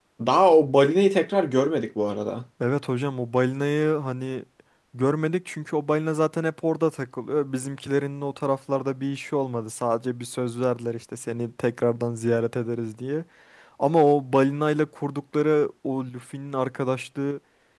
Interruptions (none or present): none